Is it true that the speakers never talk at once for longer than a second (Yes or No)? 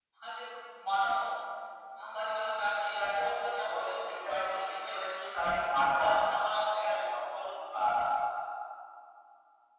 No